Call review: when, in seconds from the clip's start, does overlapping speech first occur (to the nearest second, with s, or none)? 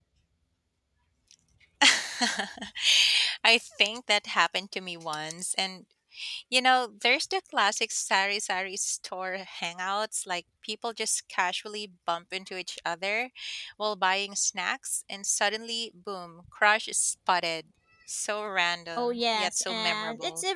19 s